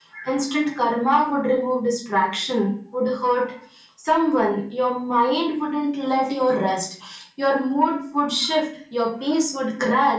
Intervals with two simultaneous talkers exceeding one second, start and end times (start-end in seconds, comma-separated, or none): none